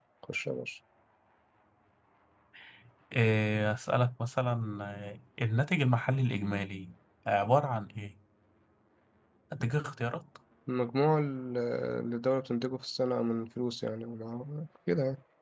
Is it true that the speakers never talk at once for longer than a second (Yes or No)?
Yes